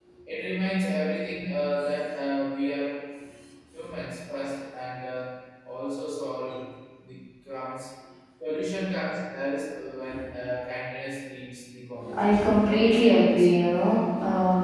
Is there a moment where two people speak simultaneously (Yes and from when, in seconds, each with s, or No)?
Yes, from 12.0 s